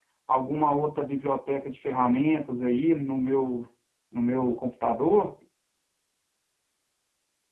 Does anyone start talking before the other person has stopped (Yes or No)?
No